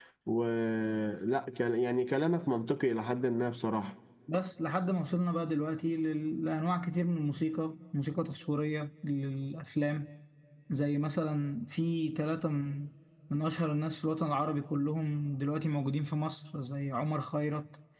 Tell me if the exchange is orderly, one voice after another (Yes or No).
Yes